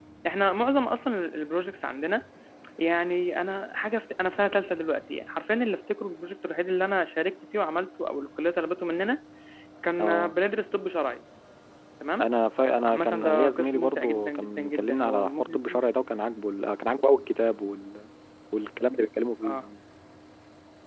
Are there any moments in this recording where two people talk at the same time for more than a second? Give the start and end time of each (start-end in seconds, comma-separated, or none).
12.9-15.8